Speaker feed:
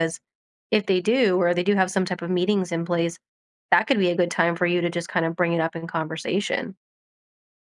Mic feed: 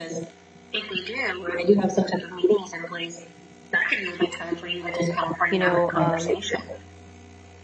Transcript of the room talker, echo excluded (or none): you know, um,